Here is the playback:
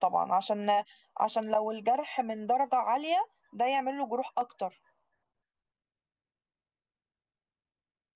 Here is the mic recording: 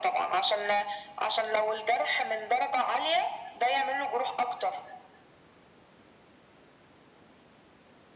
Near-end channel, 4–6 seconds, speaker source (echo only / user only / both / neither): echo only